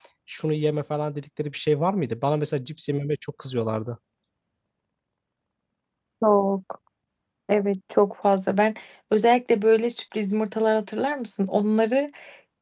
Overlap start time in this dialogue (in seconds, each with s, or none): none